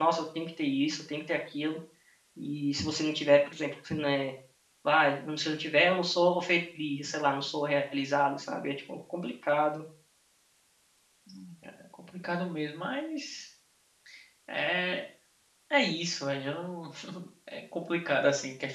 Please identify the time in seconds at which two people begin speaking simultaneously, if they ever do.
none

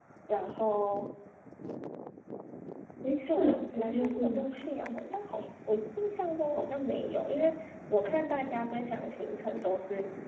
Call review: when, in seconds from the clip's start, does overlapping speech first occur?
3.3 s

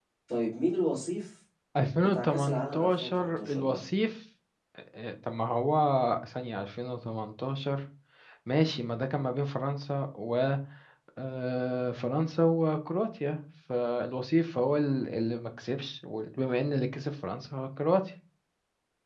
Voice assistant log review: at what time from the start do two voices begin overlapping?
2.0 s

